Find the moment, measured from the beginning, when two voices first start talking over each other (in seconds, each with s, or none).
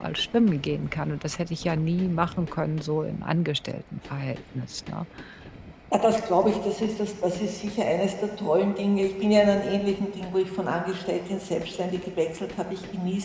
none